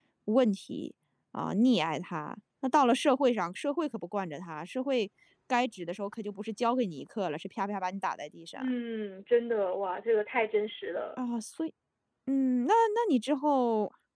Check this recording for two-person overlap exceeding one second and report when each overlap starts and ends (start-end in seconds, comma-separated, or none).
none